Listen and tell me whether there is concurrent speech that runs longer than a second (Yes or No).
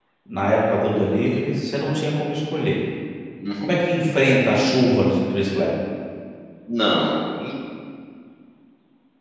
No